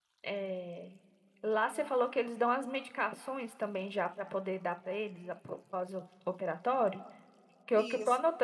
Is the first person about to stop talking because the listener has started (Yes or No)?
No